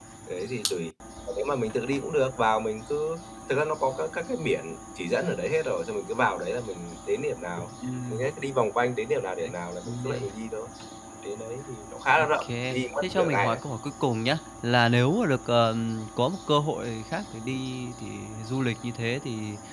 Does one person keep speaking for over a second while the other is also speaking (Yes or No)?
Yes